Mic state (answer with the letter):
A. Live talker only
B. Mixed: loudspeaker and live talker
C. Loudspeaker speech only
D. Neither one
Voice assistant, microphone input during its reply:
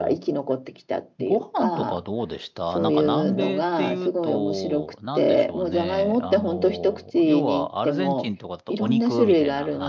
B